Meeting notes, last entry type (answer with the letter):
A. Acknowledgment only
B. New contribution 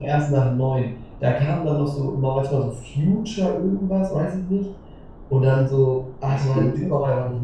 A